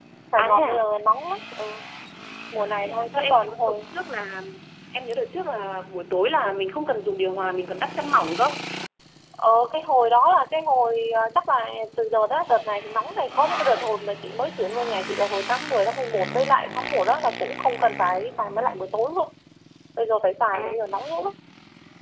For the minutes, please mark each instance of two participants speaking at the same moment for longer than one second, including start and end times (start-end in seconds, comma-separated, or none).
2.6-3.8